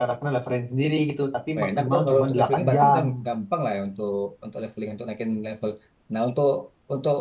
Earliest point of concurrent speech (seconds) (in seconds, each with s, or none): 1.6 s